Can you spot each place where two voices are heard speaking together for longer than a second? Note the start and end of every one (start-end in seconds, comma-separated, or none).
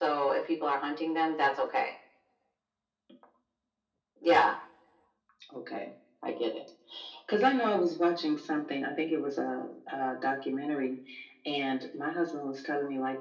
none